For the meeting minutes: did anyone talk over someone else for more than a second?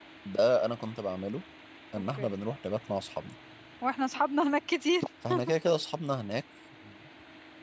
No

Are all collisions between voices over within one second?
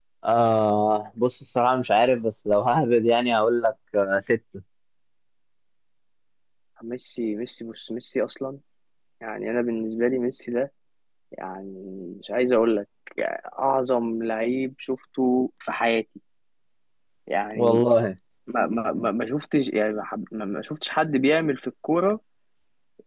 Yes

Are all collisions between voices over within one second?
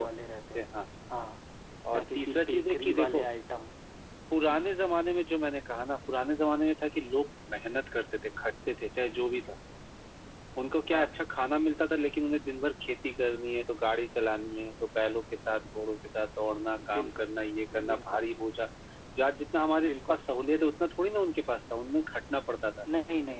No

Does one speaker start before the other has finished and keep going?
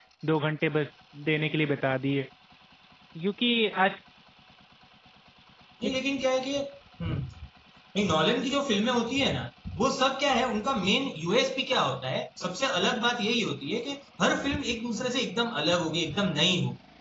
No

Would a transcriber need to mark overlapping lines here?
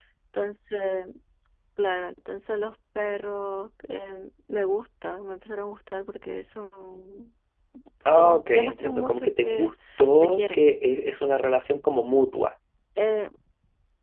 Yes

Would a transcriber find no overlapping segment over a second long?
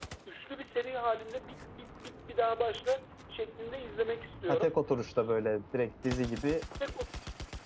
Yes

